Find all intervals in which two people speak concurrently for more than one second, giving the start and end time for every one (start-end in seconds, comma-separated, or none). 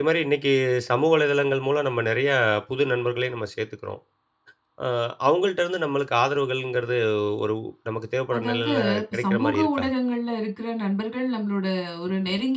8.4-9.8